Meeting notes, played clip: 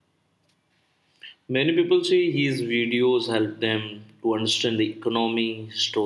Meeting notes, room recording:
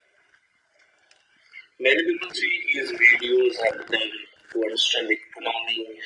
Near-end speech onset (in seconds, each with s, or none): none